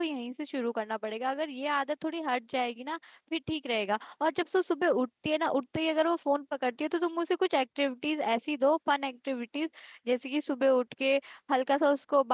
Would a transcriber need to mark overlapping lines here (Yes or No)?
No